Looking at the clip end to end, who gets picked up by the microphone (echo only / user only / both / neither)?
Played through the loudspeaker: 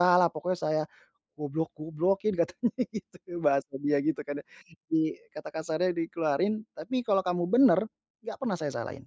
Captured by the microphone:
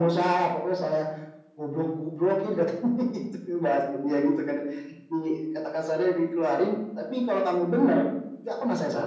echo only